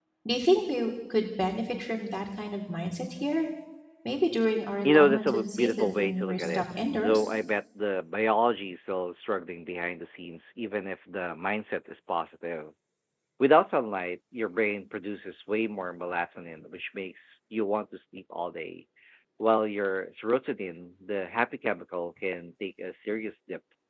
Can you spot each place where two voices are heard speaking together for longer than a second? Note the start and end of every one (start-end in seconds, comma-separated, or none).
4.8-7.3